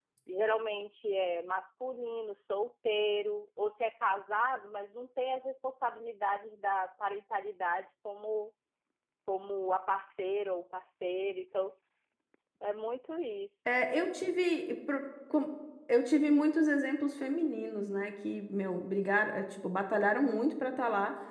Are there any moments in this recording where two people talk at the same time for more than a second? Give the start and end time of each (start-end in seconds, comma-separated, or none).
none